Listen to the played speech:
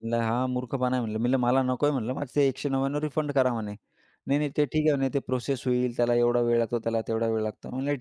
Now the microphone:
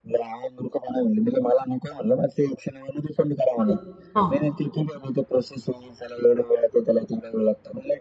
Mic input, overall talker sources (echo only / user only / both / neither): both